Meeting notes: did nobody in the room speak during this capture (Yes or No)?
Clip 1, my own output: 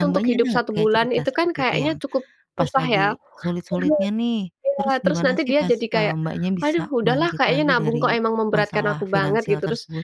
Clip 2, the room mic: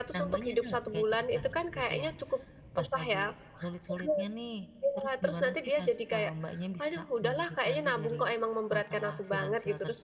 Yes